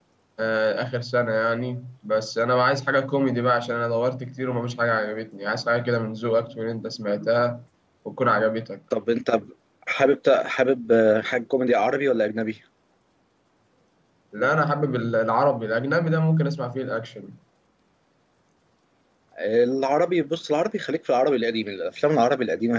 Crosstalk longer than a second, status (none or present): none